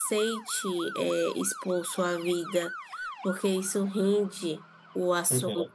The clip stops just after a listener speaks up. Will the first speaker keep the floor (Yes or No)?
Yes